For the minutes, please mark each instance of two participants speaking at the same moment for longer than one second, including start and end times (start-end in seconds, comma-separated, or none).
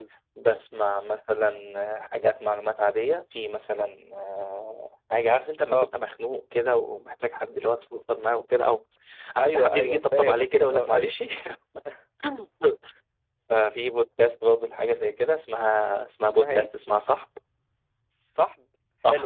9.4-11.1